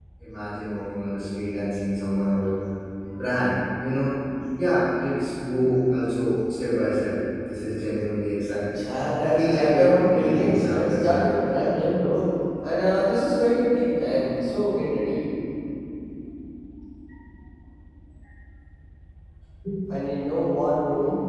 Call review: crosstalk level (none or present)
present